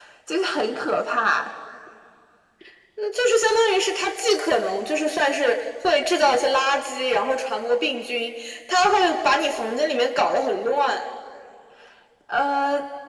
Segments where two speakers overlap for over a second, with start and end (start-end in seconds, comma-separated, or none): none